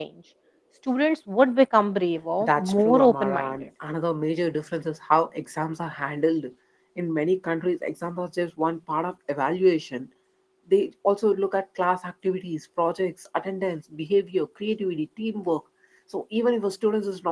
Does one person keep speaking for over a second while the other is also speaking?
Yes, from 2.4 s

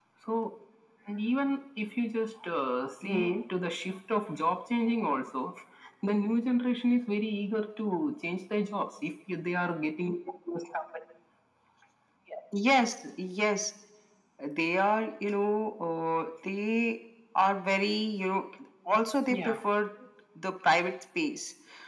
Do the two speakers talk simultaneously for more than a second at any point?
No

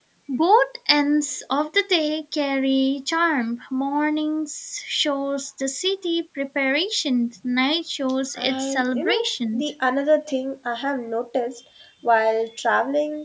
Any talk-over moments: Yes, from 8.4 s

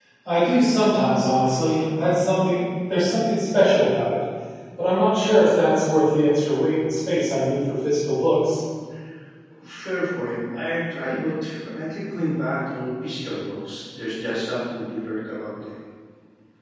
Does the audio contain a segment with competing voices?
No

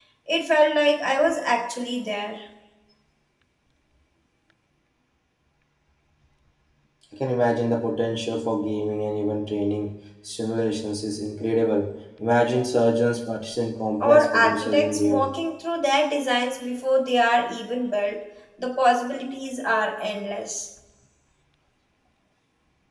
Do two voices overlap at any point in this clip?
Yes, from 14.0 s

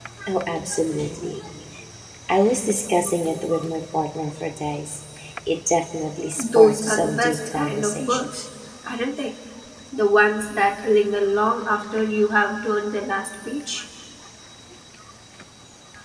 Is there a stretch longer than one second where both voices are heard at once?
Yes, from 6.4 s

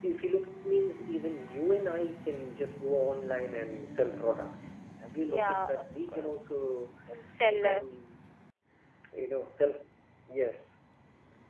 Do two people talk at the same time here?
Yes, from 5.2 s

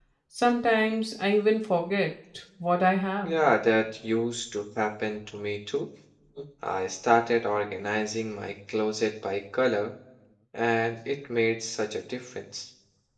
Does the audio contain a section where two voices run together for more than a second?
No

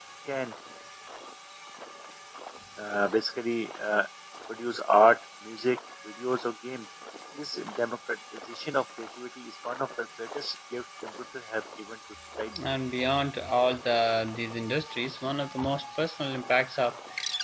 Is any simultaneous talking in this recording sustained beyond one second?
No

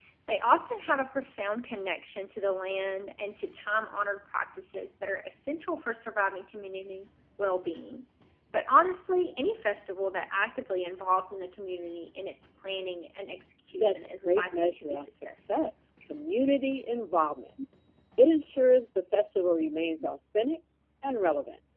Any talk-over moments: Yes, from 13.7 s

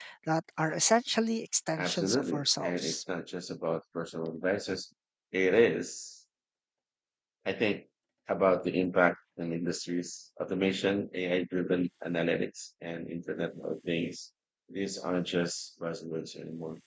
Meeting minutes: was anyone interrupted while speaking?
Yes, from 1.8 s

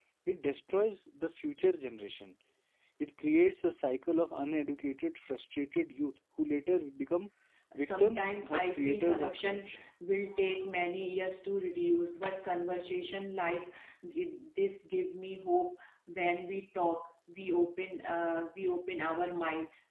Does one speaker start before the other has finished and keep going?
Yes, from 7.8 s

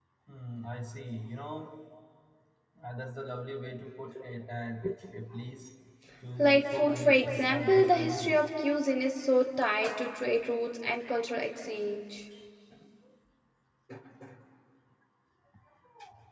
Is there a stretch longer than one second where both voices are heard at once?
Yes, from 6.4 s

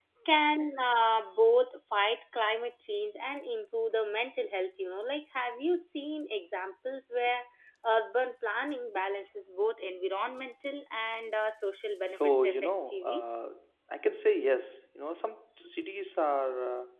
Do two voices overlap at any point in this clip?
Yes, from 12.0 s

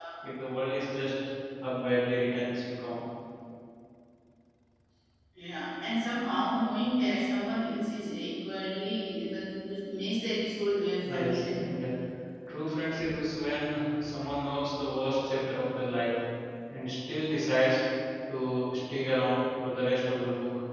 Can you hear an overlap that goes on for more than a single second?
No

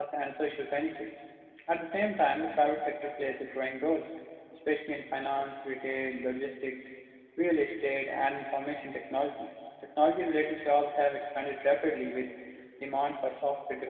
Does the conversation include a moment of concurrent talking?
No

